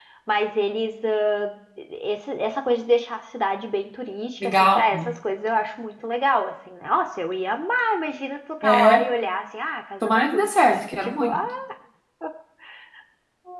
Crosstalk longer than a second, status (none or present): present